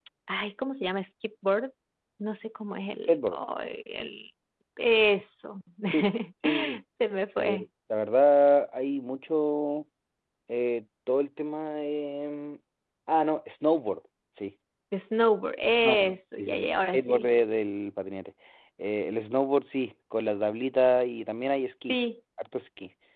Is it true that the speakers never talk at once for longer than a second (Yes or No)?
No